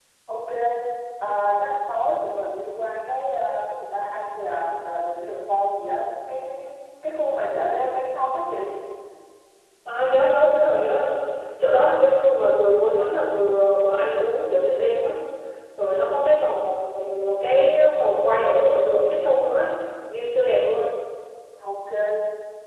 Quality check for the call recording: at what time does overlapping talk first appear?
none

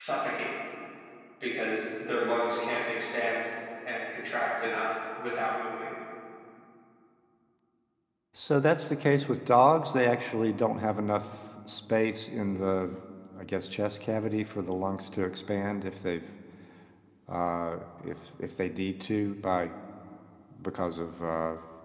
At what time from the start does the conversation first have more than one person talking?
none

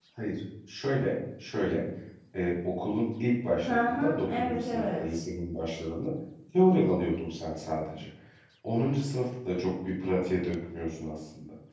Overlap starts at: 3.7 s

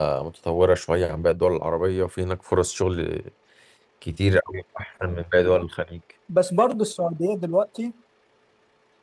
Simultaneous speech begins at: none

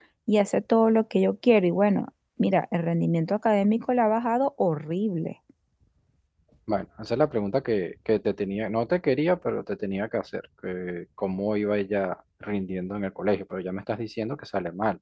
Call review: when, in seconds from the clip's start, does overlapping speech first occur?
none

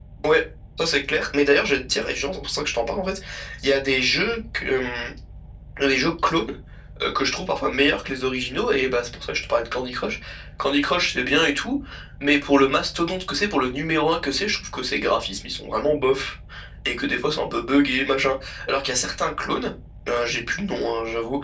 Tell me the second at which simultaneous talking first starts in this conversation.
none

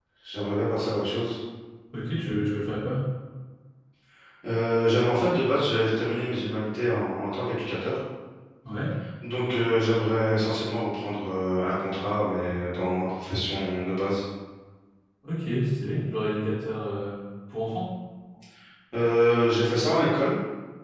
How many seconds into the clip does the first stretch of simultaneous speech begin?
none

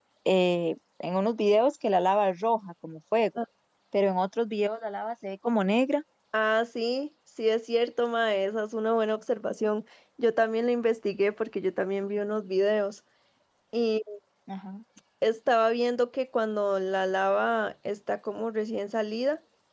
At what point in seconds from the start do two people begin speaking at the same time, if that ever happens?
none

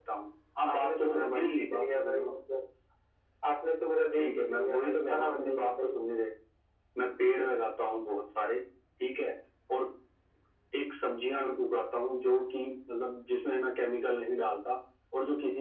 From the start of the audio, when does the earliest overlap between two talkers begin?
0.7 s

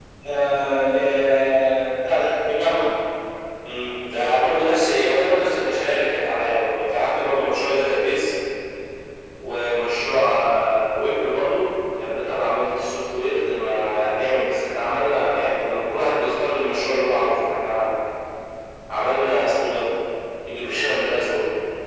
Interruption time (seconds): none

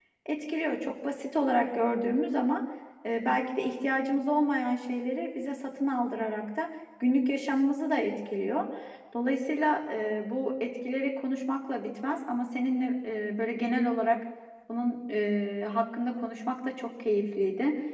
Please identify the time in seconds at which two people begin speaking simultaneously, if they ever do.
none

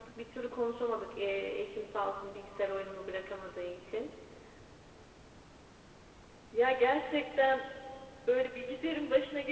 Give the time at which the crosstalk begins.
none

